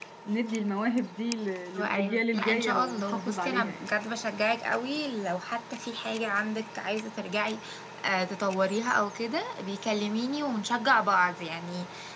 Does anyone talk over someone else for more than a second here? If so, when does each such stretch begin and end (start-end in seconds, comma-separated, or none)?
1.8-3.9